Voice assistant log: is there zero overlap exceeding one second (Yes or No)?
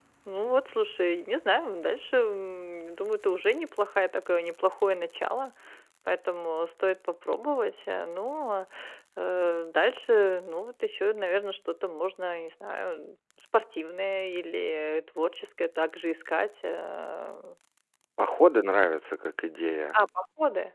Yes